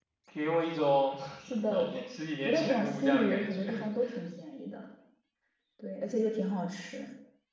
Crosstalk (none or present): present